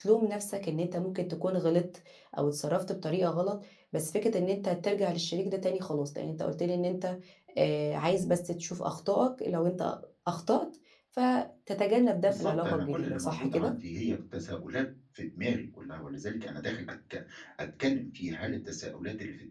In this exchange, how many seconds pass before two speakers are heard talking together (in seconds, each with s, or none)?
12.3 s